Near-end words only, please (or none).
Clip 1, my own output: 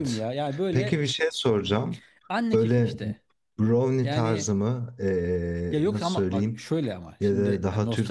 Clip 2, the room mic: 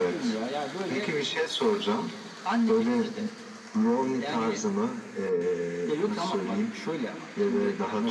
none